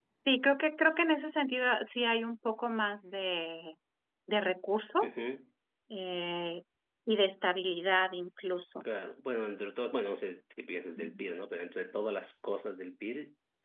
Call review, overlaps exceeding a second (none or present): none